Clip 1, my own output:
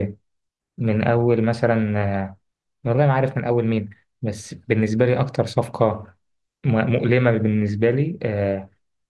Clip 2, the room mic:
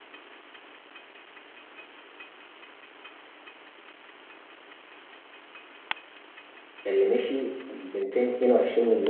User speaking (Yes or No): Yes